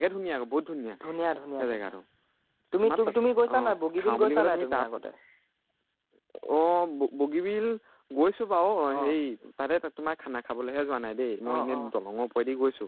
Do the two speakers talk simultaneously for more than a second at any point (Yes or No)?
Yes